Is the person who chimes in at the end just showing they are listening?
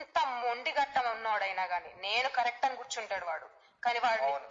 No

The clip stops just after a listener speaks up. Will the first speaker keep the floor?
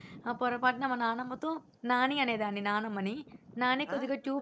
Yes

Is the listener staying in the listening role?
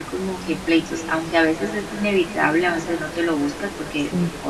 Yes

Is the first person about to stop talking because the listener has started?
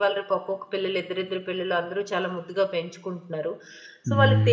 No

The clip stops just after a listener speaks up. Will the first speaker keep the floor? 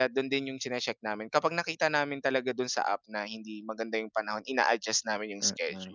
No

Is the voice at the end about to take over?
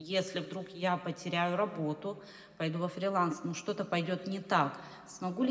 No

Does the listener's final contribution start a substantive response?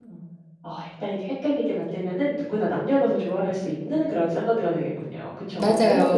Yes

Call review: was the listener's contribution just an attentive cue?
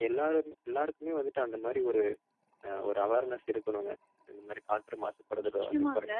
No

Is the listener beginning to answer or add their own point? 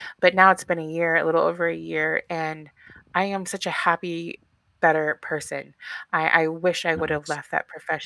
No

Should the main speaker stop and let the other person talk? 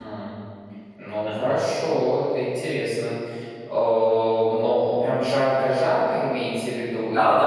Yes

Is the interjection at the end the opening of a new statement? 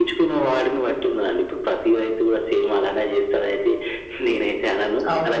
Yes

